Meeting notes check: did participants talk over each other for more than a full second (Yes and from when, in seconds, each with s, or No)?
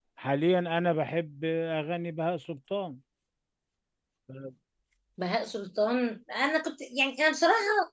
No